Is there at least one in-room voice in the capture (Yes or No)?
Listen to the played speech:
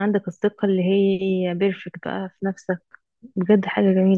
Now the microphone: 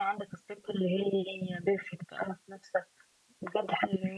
No